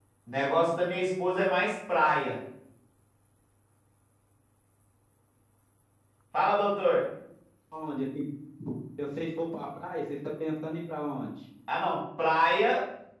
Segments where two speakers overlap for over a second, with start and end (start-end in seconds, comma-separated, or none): none